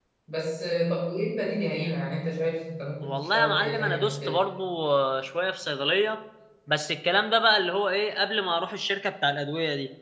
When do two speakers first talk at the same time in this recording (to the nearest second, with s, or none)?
3 s